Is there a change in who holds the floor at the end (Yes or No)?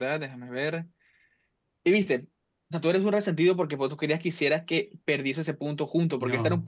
No